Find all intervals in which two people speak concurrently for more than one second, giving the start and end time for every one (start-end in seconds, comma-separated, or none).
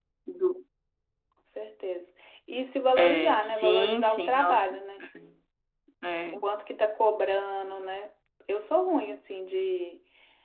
3.0-4.6